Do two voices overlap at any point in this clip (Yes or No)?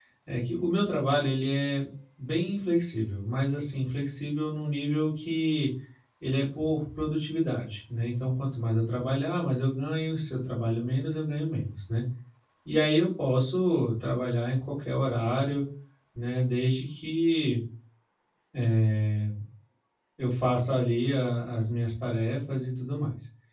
No